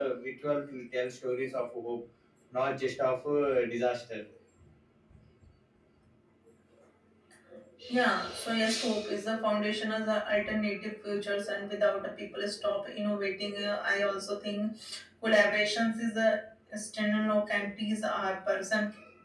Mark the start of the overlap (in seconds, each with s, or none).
none